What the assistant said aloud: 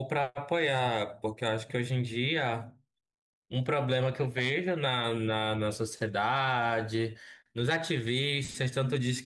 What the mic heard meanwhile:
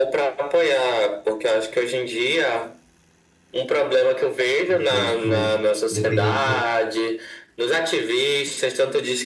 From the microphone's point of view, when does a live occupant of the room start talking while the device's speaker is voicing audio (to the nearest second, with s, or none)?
5 s